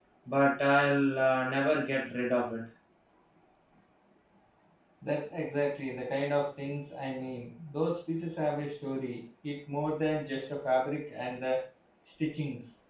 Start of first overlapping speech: none

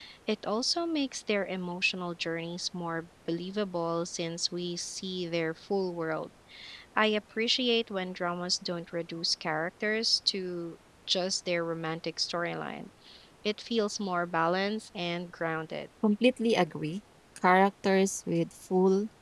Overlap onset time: none

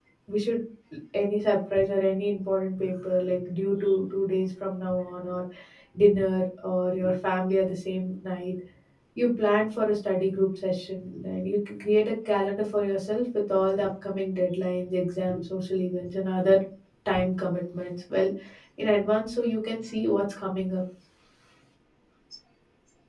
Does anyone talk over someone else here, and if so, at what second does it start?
none

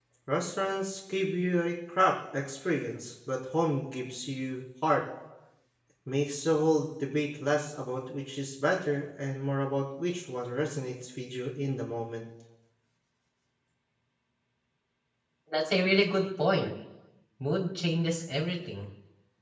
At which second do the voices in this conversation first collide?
none

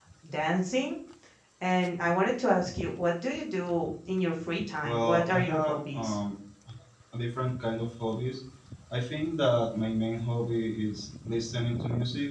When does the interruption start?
5 s

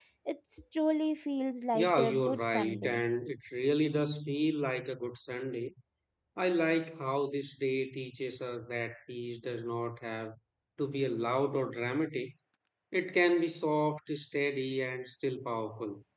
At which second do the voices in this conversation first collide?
2 s

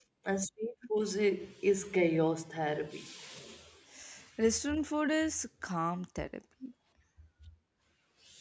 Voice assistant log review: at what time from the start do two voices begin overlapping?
none

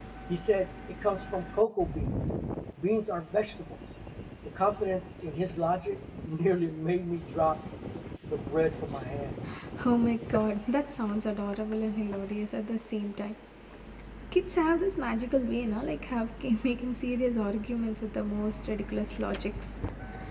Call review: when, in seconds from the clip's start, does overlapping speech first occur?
none

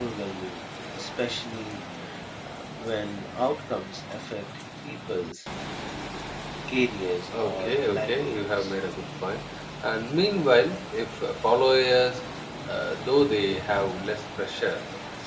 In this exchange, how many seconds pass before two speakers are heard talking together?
7 s

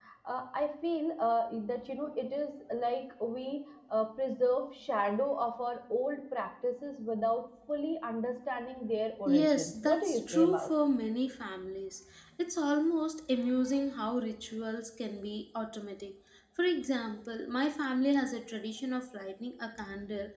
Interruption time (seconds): 9 s

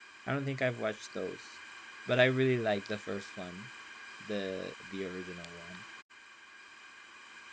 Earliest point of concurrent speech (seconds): none

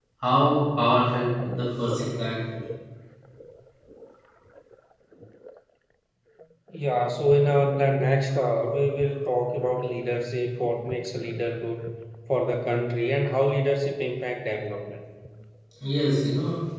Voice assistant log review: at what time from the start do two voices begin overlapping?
none

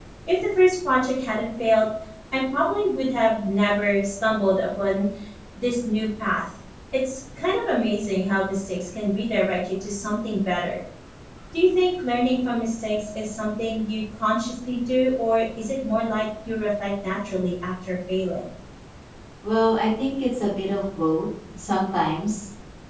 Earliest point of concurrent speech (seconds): none

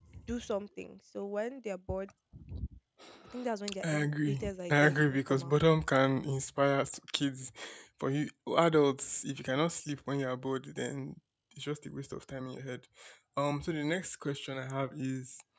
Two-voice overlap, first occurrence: 4 s

